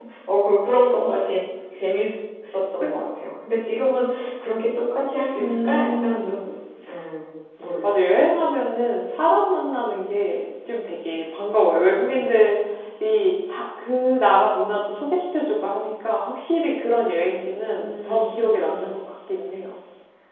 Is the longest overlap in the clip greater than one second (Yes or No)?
Yes